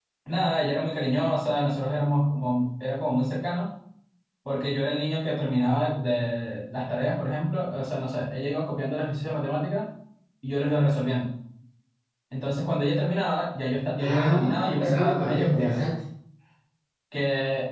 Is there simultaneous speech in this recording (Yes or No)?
Yes